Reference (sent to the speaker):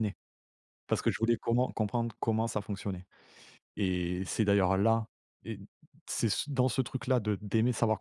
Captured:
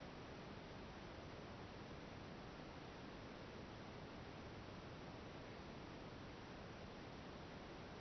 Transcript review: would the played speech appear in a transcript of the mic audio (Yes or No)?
No